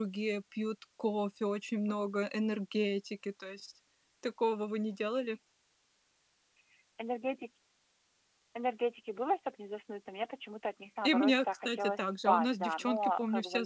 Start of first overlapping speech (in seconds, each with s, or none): 11.0 s